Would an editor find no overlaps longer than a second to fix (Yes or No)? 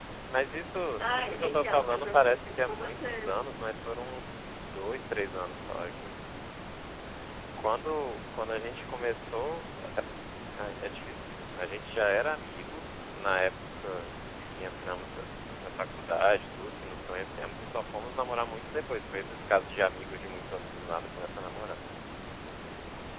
No